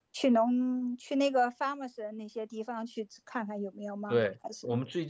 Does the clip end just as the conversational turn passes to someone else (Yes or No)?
Yes